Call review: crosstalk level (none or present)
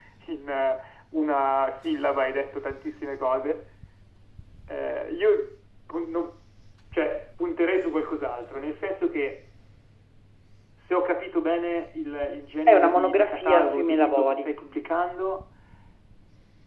present